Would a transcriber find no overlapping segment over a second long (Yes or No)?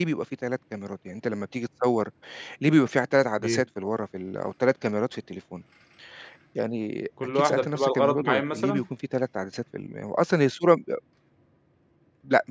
No